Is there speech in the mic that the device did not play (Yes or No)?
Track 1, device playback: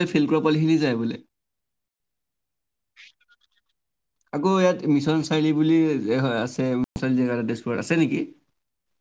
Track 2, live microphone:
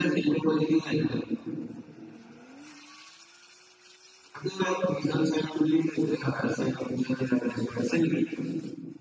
No